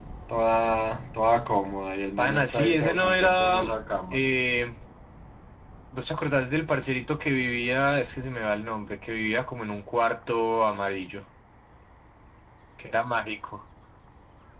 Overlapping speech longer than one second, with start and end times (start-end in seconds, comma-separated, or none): 2.2-3.6